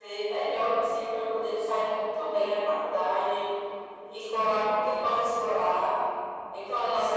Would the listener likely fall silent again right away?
Yes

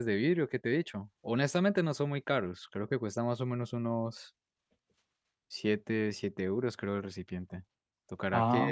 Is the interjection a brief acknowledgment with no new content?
Yes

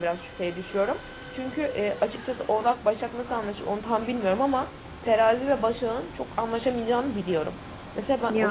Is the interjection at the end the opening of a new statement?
No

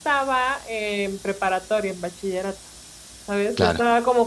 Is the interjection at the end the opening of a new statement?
No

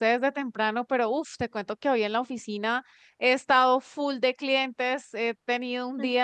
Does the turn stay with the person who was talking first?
Yes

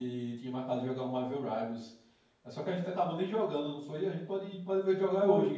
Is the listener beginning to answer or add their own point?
Yes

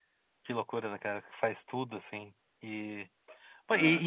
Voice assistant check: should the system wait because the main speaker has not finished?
Yes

